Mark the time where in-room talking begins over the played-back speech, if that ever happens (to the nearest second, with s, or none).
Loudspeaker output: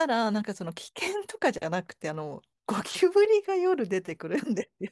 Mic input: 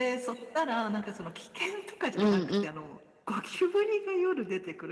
2 s